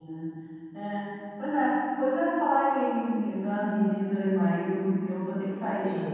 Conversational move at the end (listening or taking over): listening